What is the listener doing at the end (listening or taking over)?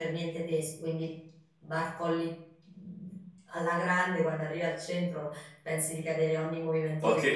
taking over